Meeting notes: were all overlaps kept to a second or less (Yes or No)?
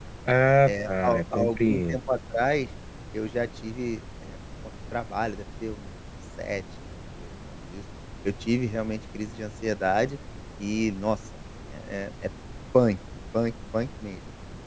No